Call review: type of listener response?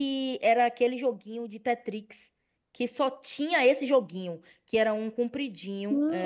taking over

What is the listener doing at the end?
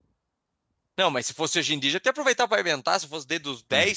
taking over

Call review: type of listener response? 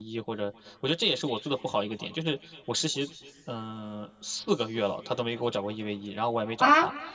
taking over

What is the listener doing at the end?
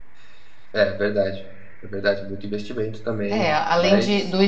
taking over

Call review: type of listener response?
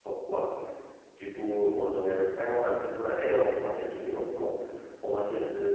listening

